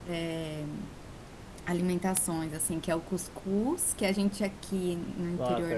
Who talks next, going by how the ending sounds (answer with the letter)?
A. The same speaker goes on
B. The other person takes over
B